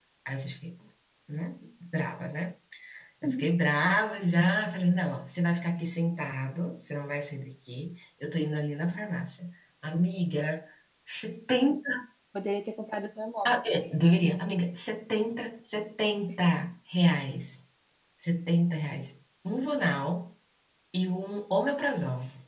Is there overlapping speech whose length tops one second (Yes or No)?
No